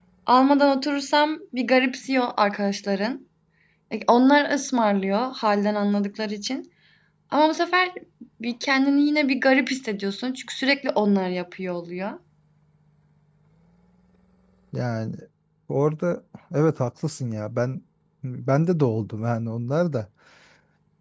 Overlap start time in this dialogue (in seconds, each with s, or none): none